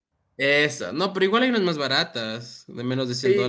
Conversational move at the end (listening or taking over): taking over